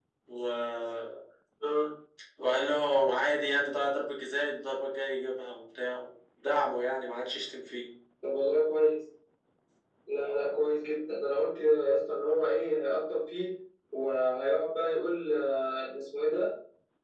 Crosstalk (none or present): none